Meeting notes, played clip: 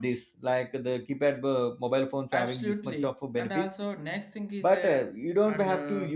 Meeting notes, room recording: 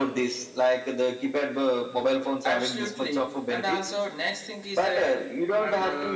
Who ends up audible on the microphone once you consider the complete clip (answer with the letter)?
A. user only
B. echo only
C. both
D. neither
B